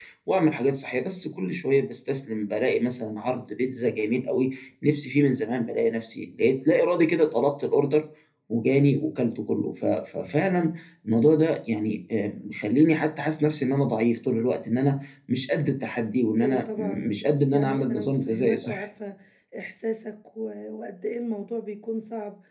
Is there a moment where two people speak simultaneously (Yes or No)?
Yes